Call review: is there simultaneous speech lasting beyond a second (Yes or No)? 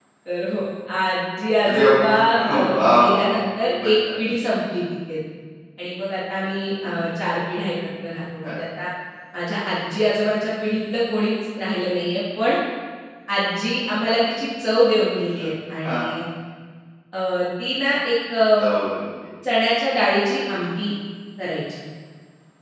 Yes